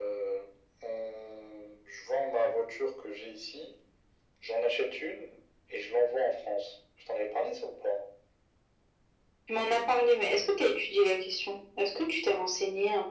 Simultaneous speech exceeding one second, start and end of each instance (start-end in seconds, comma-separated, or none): none